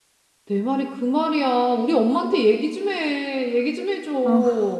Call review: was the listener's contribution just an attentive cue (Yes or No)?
No